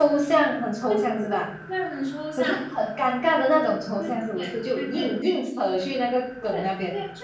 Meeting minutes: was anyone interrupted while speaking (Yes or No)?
Yes